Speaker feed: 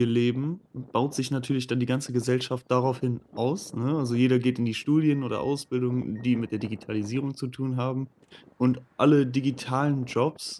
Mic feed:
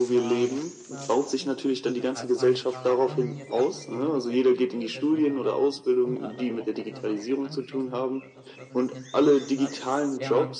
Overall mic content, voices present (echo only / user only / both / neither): both